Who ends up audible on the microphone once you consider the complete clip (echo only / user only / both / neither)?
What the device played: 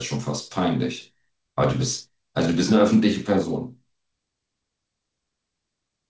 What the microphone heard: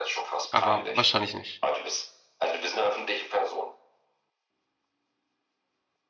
both